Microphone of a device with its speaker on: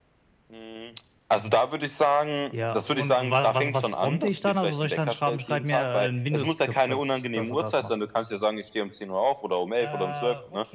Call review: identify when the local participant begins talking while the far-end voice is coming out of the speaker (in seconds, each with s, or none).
9.8 s